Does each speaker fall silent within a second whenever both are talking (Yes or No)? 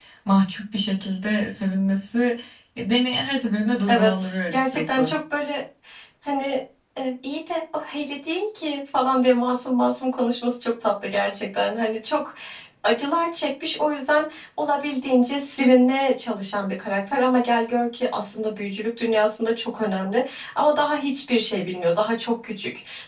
No